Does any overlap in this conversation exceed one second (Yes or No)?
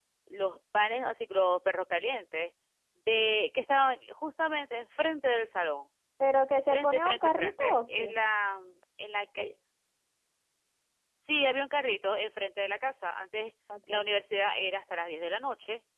Yes